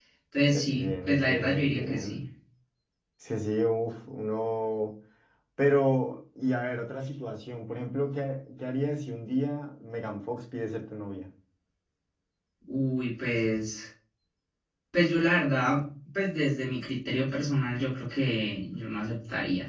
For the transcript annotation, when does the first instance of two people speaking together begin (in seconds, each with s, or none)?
0.5 s